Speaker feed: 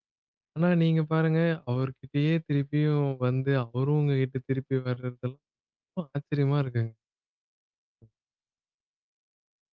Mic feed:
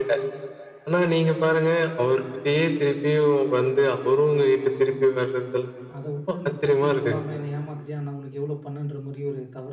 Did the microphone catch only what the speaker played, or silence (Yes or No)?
No